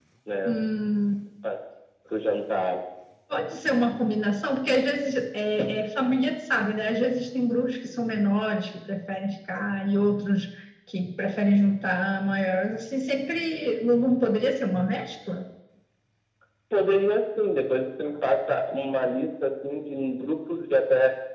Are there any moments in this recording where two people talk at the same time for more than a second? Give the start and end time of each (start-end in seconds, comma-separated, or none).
none